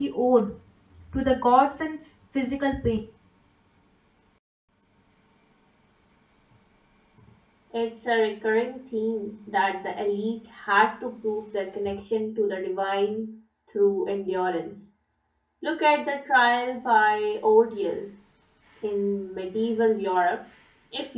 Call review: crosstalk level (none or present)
none